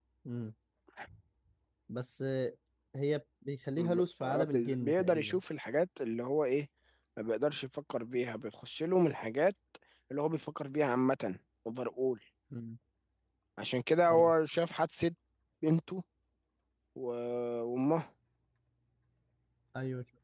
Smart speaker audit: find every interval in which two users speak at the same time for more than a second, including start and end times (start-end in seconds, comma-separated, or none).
3.8-5.4